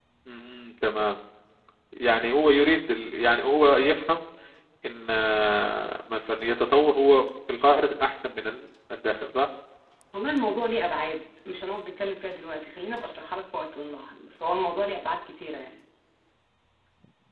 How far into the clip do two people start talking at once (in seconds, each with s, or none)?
none